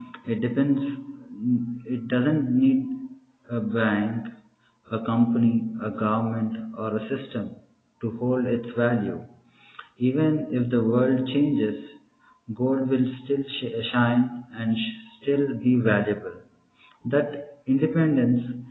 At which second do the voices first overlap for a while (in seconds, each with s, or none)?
none